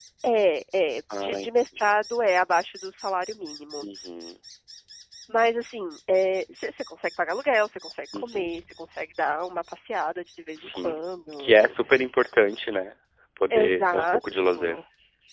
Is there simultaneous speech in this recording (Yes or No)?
Yes